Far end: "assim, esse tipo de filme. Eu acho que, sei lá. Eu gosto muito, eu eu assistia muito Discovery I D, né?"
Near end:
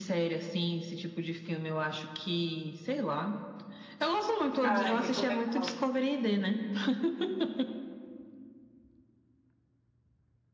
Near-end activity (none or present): present